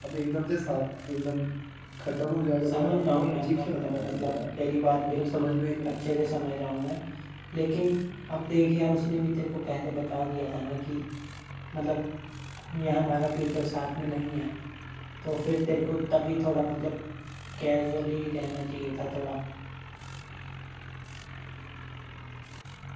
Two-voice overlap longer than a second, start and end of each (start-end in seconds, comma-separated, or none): 2.7-4.3